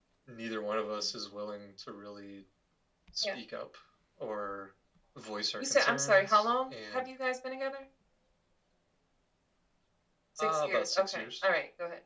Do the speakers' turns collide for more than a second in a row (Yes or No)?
Yes